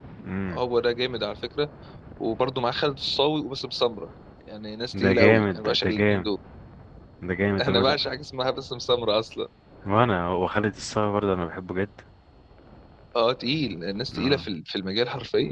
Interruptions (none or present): present